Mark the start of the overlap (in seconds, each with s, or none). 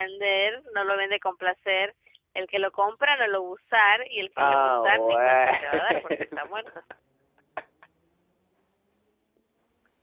4.4 s